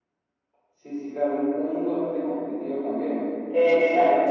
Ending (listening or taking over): listening